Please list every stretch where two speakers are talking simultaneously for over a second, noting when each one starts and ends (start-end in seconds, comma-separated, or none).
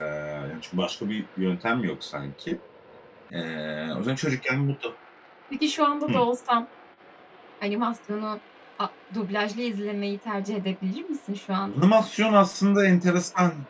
none